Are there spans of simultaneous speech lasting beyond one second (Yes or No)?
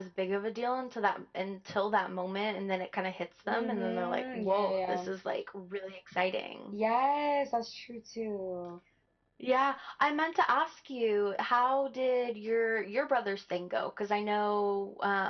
Yes